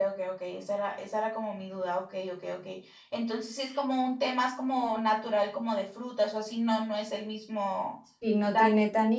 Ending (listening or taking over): taking over